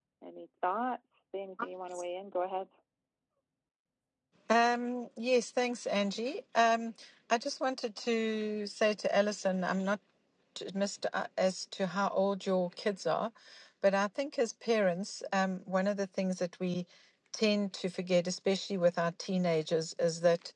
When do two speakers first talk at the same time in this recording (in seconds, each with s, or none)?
none